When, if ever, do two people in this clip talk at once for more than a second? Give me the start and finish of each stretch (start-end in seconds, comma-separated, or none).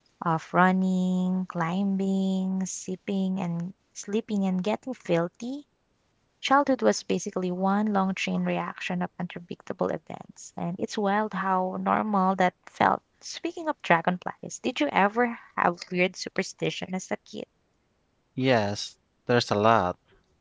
none